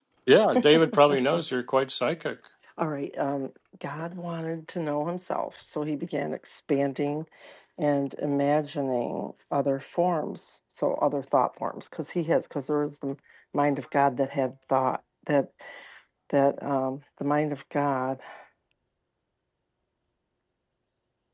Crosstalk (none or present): none